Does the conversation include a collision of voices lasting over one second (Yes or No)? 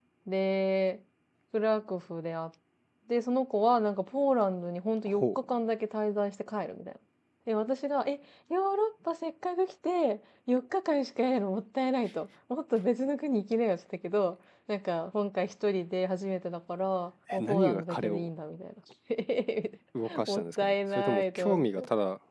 Yes